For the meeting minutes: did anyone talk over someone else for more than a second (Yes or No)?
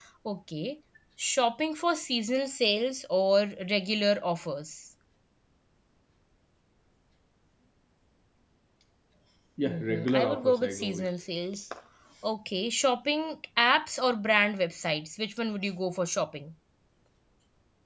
Yes